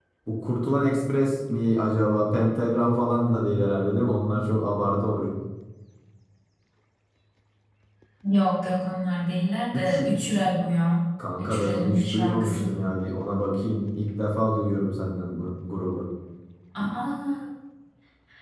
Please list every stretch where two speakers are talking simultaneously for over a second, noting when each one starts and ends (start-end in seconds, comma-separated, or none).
11.4-12.7